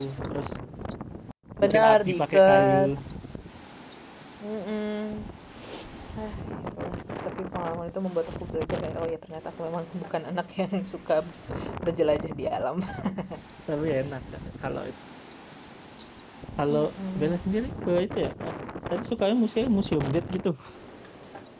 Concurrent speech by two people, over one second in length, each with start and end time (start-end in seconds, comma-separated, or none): 1.6-2.8